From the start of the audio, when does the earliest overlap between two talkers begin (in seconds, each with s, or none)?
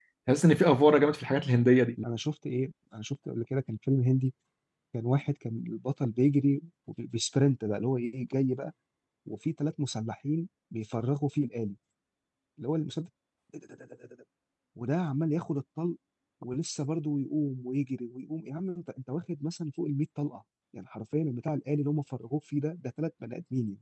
none